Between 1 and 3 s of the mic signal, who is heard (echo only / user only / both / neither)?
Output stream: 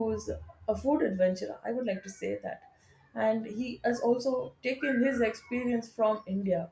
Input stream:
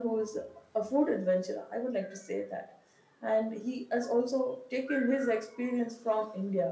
echo only